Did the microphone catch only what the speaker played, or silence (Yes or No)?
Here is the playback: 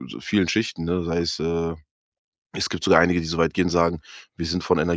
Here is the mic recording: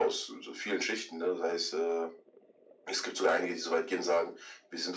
Yes